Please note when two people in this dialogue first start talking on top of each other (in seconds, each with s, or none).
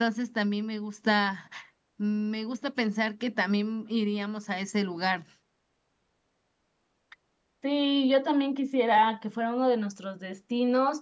none